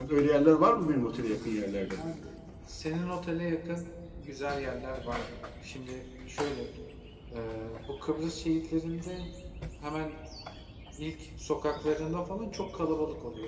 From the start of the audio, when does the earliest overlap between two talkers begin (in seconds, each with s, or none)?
none